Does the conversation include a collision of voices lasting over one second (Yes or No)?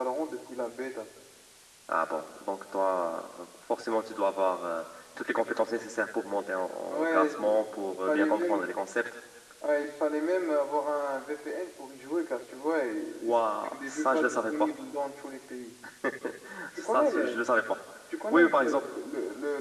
Yes